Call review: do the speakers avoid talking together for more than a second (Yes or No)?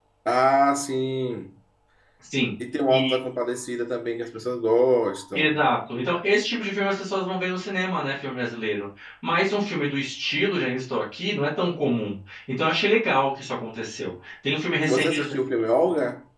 Yes